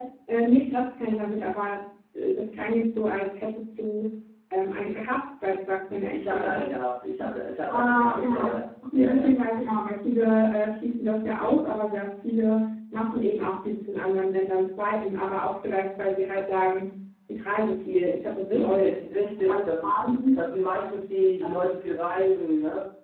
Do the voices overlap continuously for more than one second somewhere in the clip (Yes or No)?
Yes